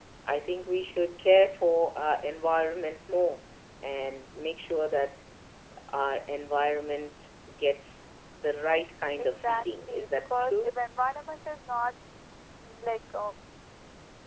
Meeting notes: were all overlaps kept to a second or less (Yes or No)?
No